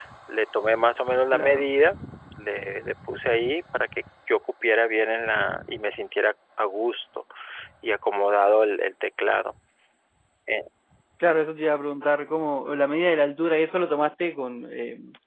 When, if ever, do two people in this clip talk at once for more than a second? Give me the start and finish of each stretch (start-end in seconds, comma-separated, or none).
none